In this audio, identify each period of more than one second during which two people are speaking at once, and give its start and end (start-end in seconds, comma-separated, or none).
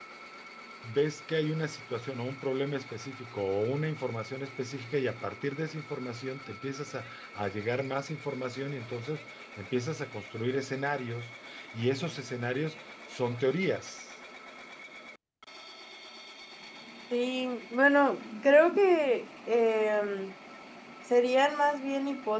none